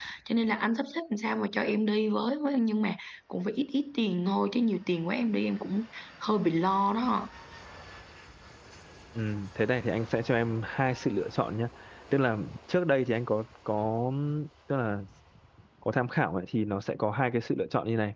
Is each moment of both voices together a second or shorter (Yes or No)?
Yes